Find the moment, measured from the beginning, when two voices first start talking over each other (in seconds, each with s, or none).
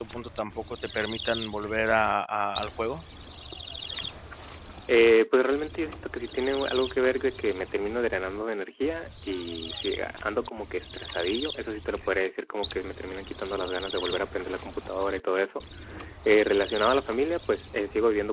none